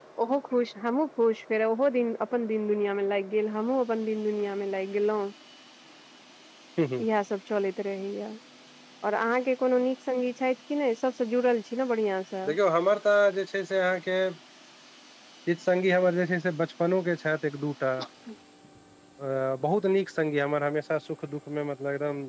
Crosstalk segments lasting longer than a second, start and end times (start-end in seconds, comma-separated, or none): none